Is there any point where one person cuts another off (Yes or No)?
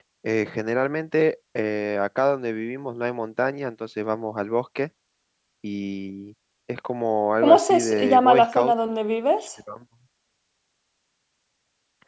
Yes